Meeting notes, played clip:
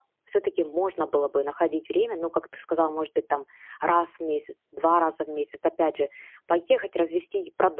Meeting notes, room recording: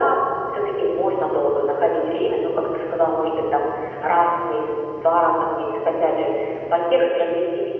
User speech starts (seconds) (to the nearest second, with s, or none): none